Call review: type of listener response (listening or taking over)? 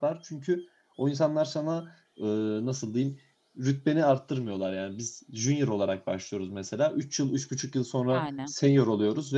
listening